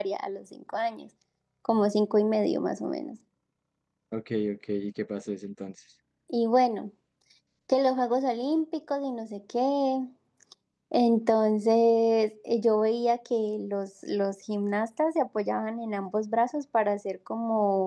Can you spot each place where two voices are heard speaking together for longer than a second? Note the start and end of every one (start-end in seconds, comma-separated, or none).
none